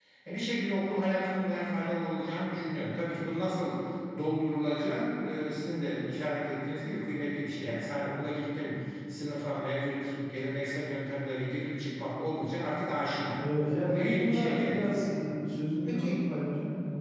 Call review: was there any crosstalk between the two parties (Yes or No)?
Yes